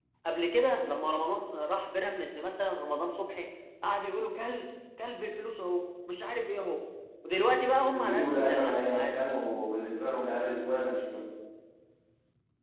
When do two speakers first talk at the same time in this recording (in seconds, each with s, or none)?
7.9 s